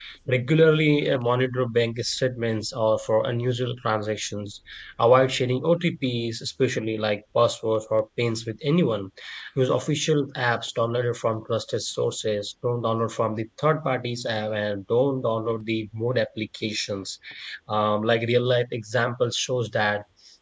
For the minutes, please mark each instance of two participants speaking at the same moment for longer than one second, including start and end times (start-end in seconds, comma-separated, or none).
none